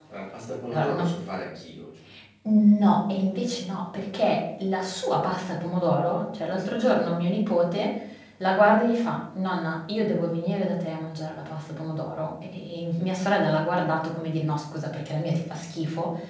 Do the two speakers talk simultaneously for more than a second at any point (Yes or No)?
No